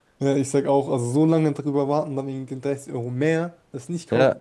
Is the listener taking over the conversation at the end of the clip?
Yes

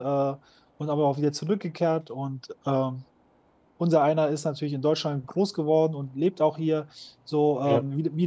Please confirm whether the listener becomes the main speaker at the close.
No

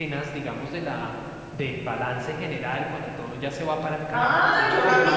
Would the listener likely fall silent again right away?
No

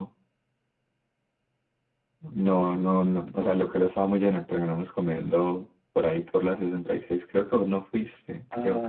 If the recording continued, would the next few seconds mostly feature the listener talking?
Yes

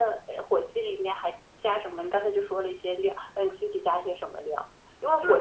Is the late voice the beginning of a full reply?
No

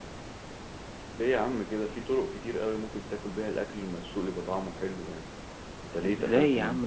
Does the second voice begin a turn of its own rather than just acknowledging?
Yes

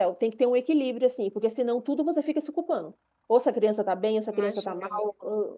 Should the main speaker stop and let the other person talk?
No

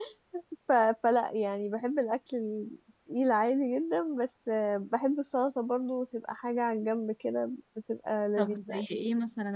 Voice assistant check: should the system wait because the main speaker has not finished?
No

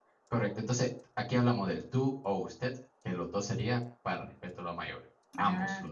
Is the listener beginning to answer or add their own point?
No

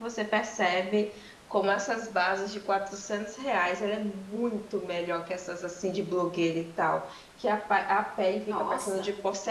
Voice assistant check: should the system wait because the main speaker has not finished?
Yes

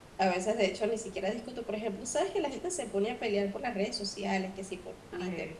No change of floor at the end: Yes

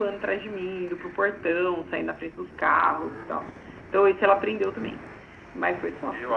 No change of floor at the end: No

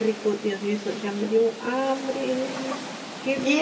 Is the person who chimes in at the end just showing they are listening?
No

